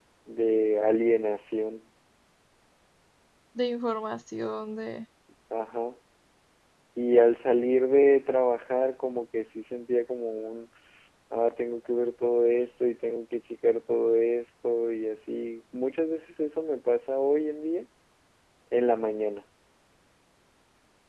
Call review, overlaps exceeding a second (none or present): none